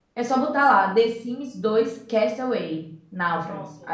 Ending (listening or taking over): taking over